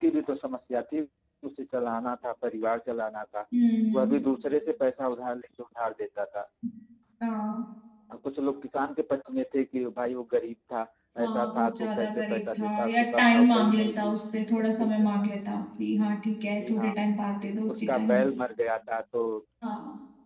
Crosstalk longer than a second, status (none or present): present